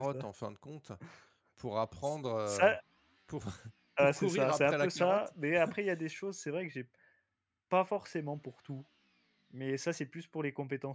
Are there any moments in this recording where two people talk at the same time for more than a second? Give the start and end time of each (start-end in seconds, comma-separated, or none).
4.0-5.3